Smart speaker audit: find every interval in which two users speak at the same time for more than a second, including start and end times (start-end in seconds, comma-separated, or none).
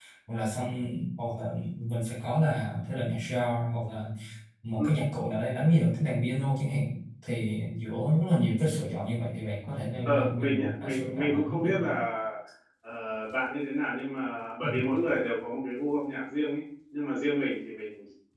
10.0-12.0